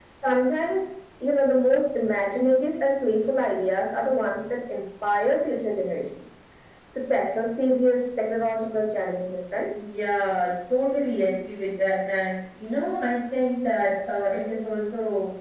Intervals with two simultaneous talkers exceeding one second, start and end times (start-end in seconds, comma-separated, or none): none